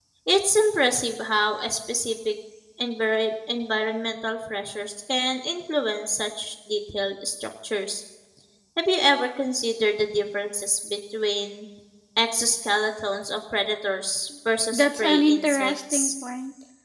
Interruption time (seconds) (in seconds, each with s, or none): 14.7 s